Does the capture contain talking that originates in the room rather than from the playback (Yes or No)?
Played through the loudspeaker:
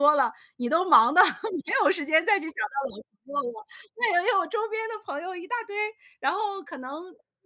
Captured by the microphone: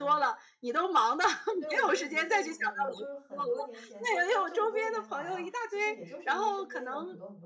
Yes